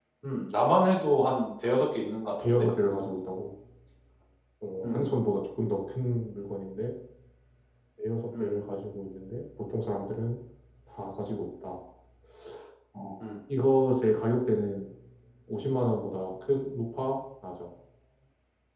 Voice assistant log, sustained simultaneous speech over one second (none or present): none